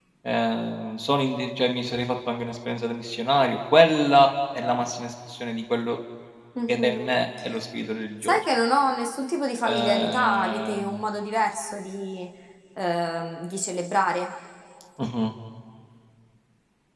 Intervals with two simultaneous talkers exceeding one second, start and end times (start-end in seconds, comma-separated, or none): 9.6-11.0